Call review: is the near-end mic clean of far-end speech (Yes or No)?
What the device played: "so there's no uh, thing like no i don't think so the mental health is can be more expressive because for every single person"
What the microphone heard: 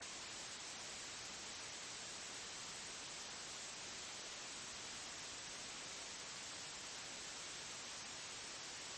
Yes